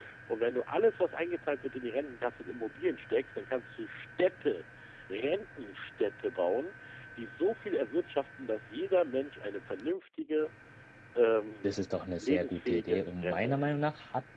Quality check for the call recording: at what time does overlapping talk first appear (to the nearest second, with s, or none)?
12 s